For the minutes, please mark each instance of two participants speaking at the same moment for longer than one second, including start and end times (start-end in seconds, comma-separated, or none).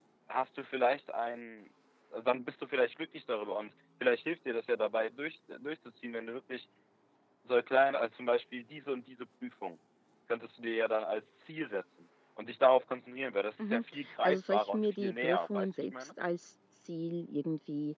14.2-16.1